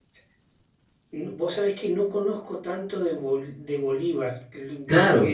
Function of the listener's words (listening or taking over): taking over